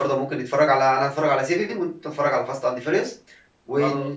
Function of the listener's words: listening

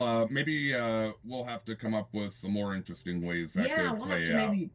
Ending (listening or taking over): taking over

